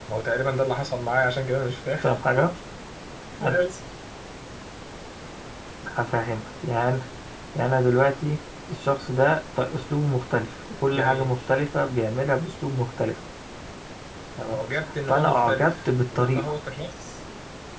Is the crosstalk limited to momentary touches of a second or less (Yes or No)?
No